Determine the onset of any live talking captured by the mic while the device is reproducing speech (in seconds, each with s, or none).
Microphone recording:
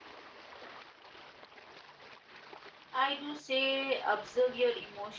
2.9 s